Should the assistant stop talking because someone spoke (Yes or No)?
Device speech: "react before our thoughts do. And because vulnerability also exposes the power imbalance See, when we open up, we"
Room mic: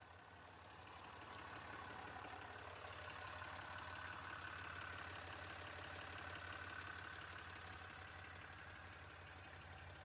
No